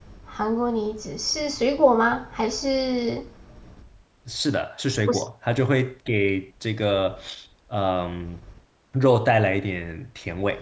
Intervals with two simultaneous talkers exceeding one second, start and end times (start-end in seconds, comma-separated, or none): none